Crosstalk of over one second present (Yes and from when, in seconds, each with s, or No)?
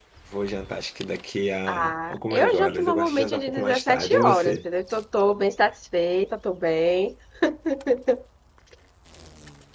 Yes, from 1.7 s